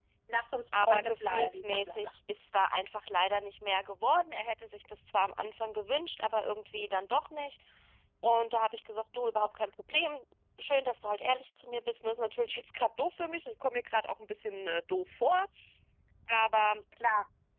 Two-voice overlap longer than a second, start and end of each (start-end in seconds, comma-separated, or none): 0.8-2.1